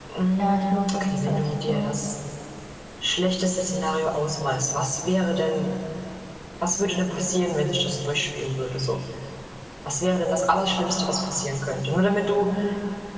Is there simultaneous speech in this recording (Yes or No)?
Yes